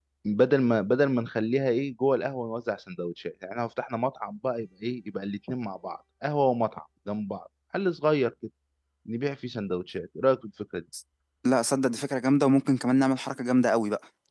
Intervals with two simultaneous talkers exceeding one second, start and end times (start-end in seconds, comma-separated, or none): none